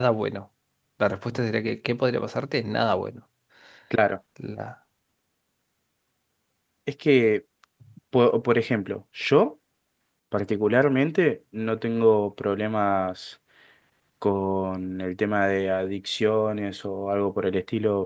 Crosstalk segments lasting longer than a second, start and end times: none

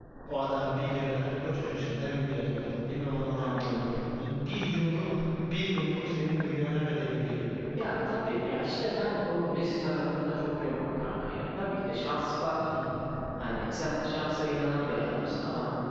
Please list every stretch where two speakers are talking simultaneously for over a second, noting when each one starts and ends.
none

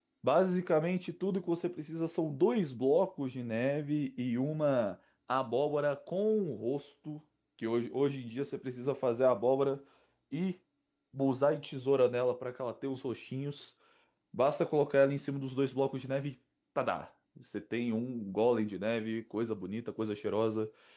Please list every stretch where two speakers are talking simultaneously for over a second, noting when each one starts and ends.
none

